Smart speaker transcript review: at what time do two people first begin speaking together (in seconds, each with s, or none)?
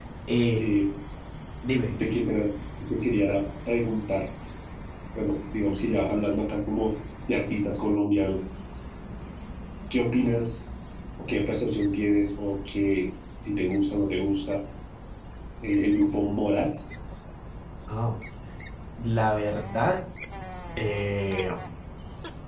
none